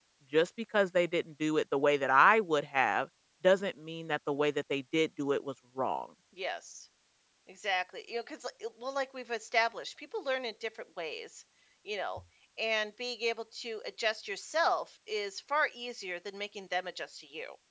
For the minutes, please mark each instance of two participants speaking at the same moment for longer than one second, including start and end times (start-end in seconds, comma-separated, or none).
none